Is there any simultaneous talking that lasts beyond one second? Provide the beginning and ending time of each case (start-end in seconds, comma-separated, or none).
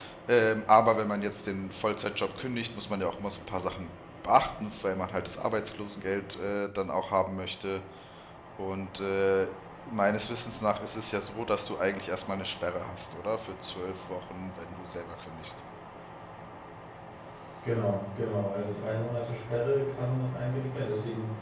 none